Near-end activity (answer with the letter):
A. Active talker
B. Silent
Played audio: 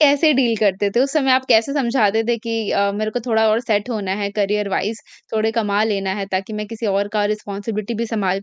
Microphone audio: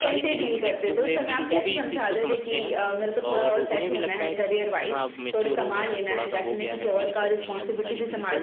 A